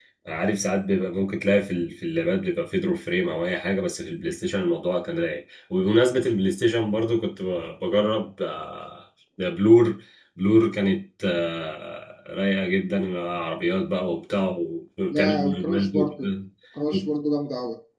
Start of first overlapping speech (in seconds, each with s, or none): 15.1 s